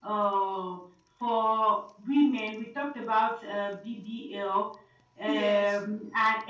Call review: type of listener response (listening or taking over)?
listening